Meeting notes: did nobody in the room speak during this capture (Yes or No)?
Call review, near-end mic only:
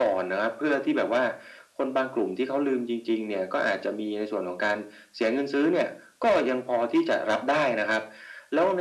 Yes